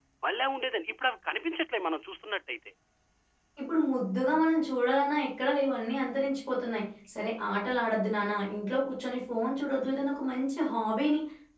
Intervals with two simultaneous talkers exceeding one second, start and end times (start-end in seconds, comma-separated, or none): none